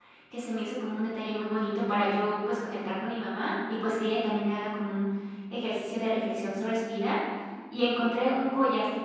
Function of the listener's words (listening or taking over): listening